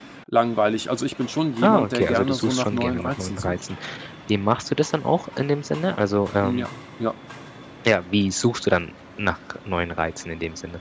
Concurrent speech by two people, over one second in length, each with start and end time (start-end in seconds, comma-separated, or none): 1.6-3.6